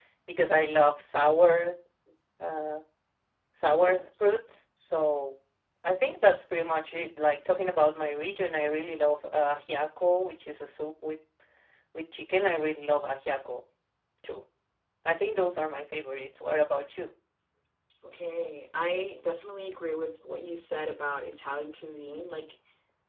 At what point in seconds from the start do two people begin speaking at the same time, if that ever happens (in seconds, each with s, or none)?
none